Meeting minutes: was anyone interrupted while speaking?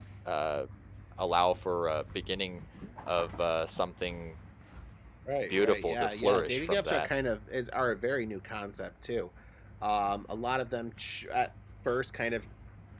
Yes, from 5.5 s

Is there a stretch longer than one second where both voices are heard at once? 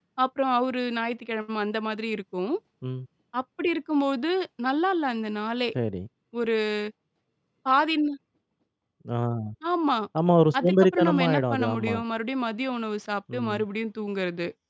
Yes, from 10.6 s

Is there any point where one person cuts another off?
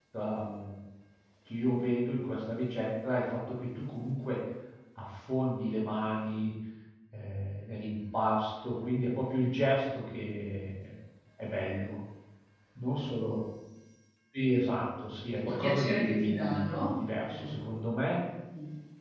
Yes, from 15.4 s

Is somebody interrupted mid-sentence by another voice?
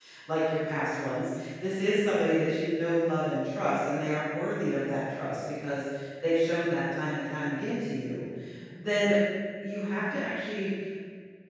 No

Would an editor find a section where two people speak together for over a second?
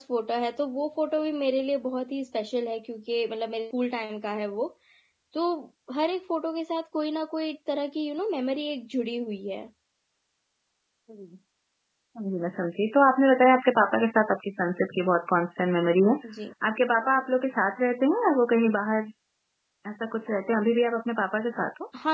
No

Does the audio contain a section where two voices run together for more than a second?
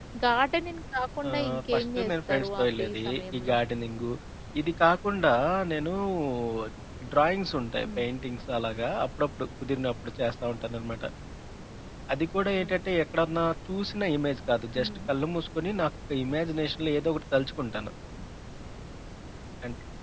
Yes, from 1.3 s

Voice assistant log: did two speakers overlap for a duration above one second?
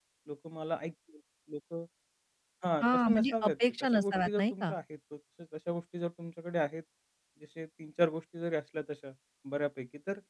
Yes, from 2.8 s

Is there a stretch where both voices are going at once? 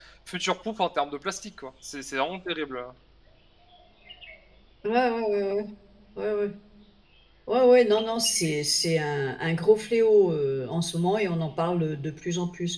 No

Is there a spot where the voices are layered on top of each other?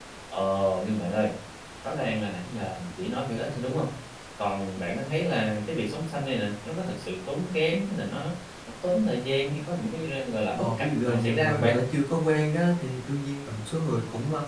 Yes, from 10.6 s

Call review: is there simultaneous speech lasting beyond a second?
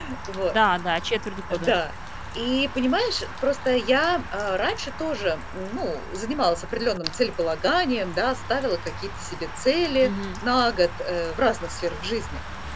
No

